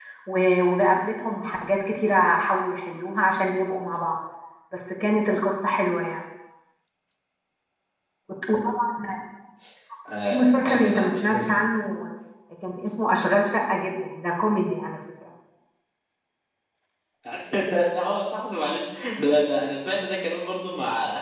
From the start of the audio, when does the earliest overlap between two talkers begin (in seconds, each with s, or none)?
10.2 s